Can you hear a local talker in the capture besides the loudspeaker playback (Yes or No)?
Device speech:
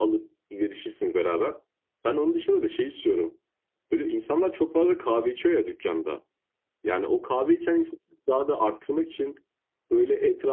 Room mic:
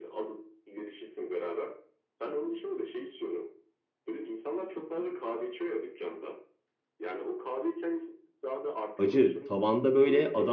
Yes